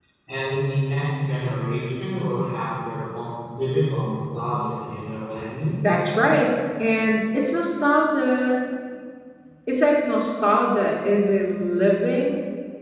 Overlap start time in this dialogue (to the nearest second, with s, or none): none